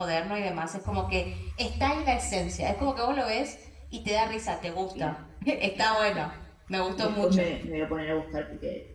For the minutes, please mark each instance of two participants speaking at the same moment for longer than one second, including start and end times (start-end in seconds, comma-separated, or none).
none